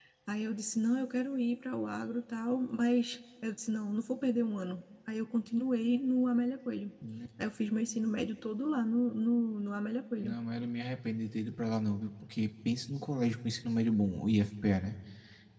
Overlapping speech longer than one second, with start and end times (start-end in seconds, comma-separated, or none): none